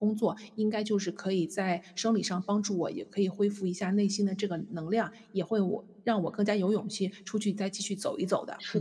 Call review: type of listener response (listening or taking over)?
taking over